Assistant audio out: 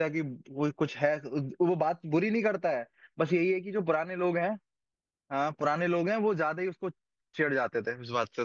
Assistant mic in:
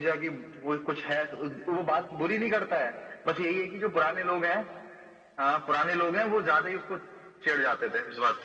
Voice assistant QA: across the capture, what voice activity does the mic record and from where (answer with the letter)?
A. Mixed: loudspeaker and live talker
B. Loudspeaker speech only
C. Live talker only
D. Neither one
B